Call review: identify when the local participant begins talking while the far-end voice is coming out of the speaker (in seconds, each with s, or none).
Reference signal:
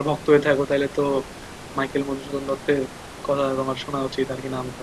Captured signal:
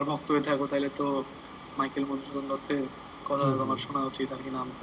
3.4 s